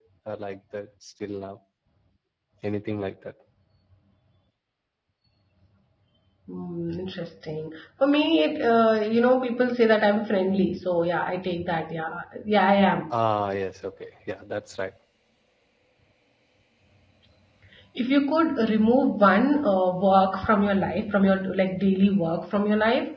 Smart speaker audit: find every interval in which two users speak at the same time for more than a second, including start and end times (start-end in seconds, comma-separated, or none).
none